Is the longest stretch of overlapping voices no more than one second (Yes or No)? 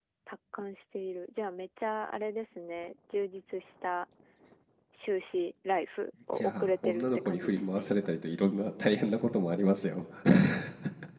No